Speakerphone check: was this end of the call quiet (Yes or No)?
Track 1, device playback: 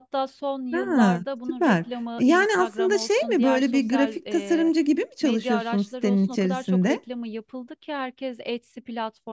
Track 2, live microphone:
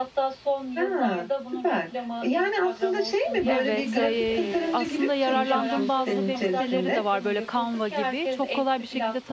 No